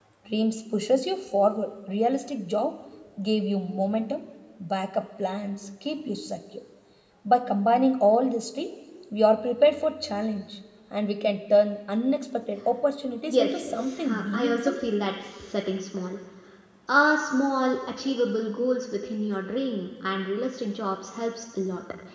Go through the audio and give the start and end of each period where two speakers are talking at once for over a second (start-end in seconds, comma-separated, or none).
13.3-14.7